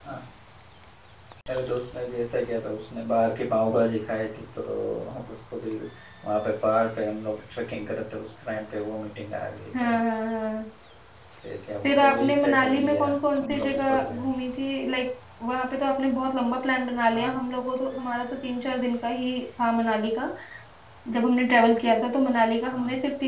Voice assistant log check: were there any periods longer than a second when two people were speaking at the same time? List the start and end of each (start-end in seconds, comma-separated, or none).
11.8-14.3